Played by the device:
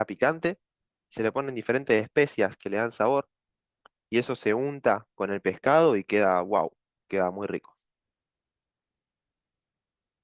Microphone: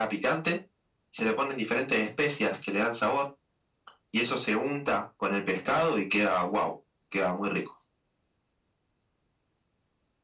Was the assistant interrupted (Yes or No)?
No